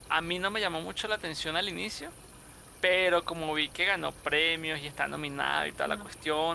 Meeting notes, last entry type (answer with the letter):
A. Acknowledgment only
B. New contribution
A